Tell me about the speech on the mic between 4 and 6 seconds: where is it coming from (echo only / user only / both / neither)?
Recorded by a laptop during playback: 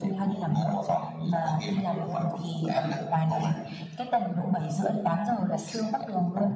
echo only